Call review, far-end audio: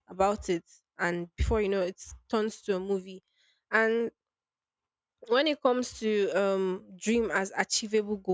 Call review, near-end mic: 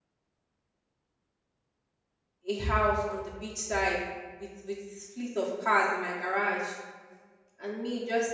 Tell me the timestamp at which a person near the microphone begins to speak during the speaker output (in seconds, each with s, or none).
2.4 s